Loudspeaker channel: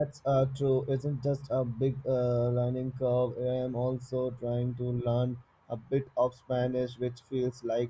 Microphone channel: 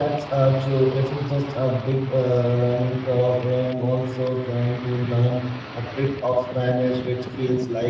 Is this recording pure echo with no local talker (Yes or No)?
Yes